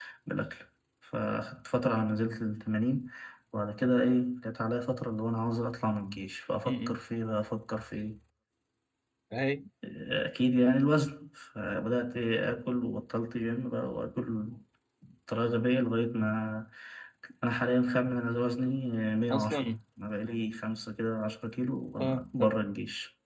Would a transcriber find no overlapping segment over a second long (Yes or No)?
Yes